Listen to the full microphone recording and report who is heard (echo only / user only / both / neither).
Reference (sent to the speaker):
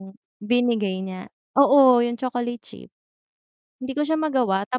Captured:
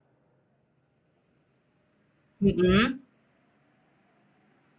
user only